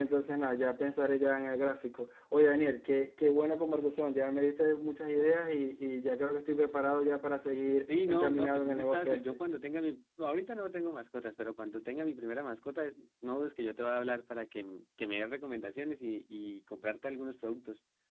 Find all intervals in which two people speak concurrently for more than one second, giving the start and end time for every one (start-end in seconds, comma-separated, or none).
7.9-9.4